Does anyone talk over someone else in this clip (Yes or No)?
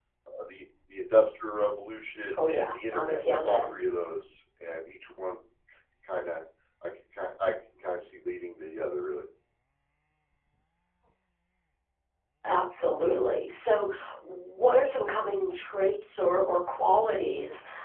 Yes